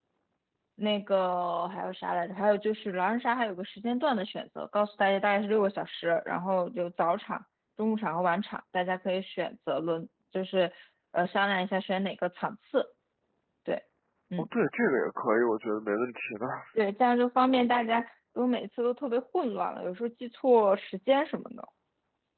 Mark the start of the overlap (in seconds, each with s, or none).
none